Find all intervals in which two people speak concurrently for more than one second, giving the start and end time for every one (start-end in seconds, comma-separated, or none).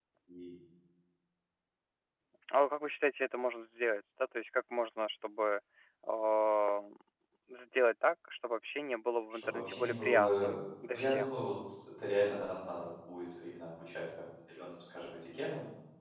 9.3-10.5